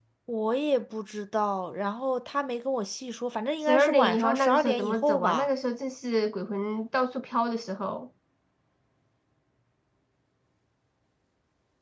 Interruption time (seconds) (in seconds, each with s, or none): 3.7 s